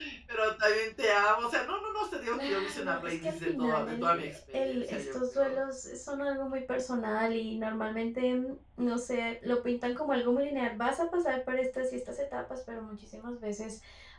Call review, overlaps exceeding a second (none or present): present